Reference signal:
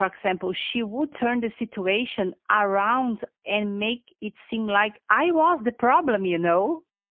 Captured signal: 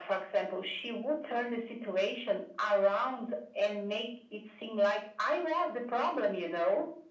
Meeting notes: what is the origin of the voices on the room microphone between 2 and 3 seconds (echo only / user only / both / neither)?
echo only